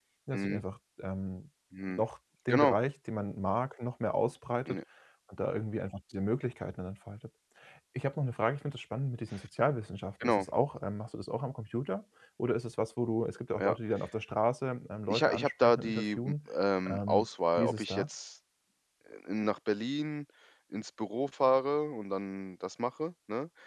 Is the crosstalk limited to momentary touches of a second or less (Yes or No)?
No